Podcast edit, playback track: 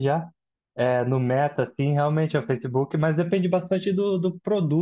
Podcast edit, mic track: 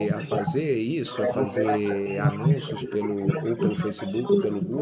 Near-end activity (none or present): present